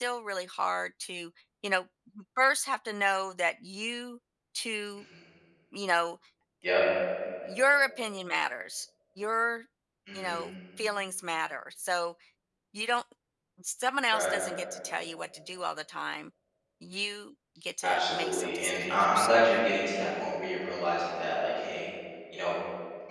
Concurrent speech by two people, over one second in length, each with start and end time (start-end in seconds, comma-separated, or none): 17.8-19.5